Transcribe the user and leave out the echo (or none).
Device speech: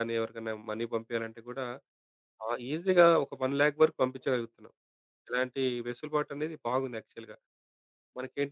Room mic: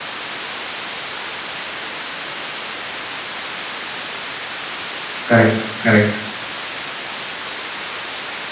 కరెక్ట్. కరెక్ట్.